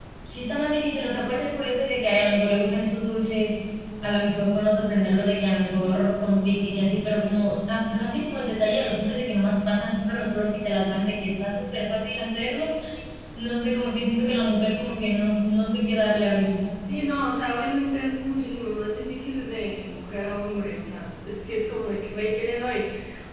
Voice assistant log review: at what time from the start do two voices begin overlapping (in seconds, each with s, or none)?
none